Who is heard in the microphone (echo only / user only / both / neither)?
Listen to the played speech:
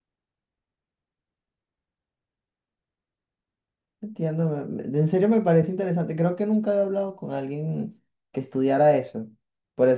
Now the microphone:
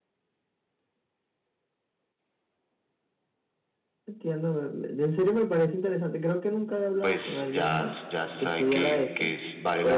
both